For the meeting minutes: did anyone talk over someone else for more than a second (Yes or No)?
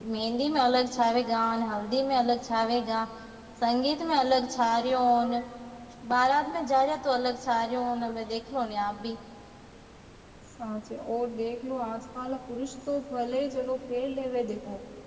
No